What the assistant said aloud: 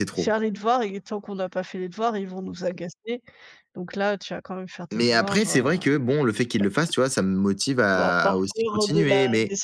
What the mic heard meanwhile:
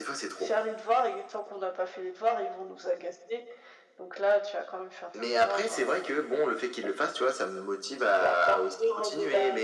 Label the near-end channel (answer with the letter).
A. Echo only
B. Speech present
A